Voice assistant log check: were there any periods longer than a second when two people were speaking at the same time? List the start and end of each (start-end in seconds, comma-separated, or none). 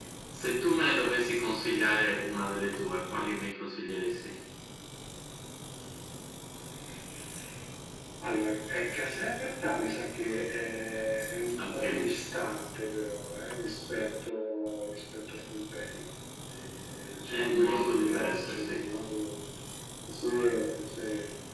17.3-18.8